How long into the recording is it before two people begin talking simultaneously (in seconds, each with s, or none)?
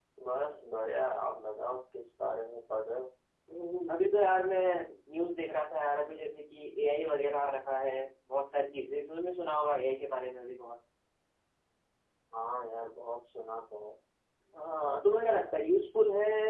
none